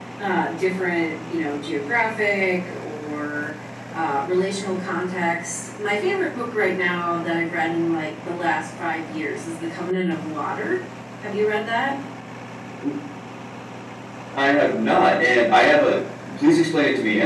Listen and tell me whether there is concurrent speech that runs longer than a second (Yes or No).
No